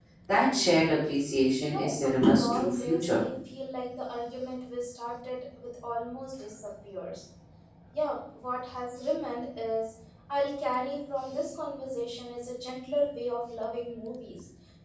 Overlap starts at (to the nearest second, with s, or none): 2 s